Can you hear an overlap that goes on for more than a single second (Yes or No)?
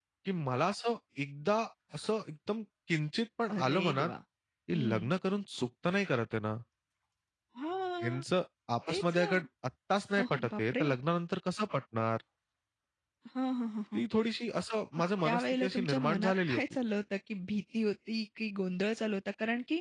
Yes